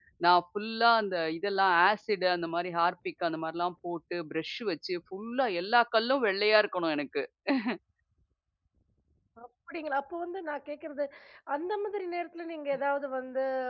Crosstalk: none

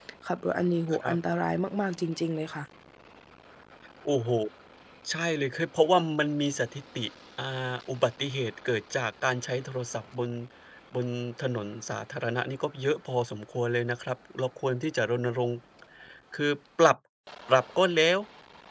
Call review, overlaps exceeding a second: none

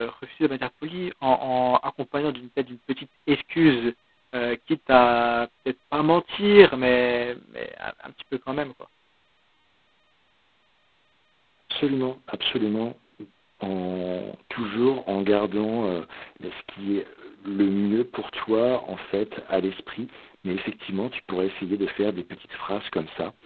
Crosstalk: none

